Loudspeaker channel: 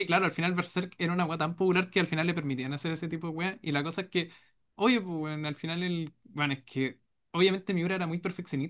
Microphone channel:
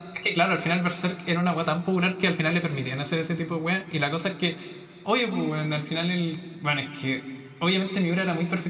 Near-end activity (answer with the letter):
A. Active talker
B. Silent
B